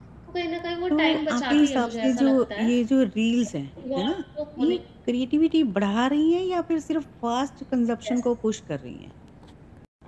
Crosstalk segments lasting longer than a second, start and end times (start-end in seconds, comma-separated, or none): 0.9-2.7